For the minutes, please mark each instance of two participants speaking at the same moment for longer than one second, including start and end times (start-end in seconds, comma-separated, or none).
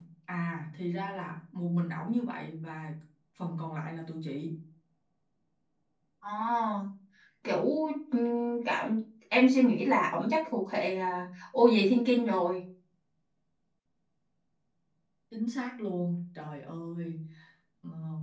none